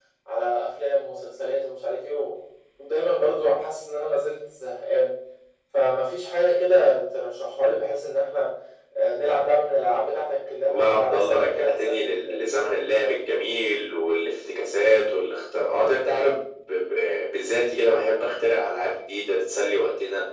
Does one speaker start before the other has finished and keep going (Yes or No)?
Yes